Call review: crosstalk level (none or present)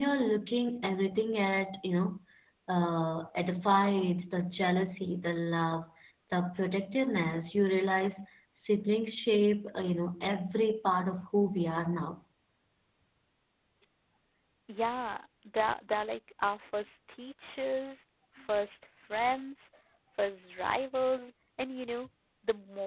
none